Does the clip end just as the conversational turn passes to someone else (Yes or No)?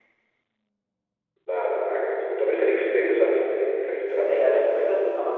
Yes